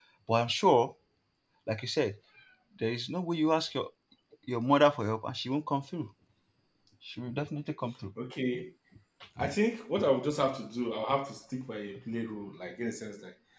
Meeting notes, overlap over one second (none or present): none